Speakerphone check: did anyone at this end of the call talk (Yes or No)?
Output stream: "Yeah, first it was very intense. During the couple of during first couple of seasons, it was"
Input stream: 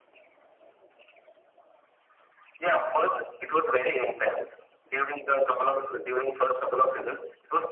No